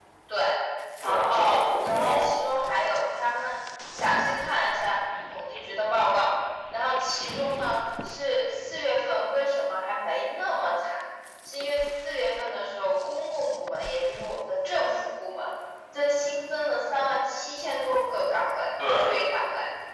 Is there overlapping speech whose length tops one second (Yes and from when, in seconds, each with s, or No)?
Yes, from 1.0 s